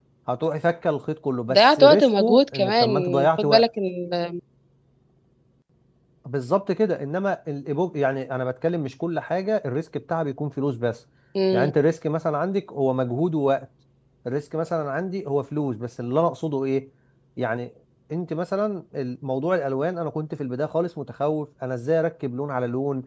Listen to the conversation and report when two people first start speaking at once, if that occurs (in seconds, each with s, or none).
1.5 s